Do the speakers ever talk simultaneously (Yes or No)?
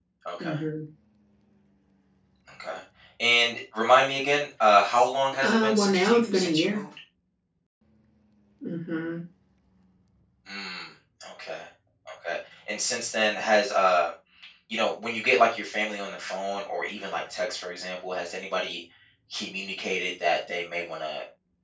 Yes